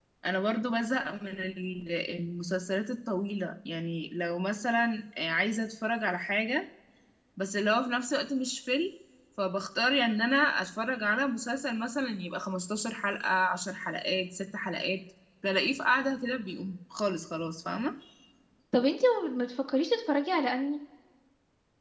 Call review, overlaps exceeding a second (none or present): none